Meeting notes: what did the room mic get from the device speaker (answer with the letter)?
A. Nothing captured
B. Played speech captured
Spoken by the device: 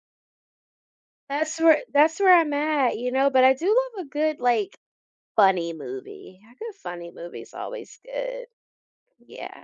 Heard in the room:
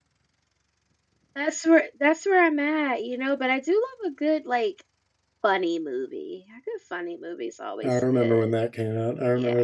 B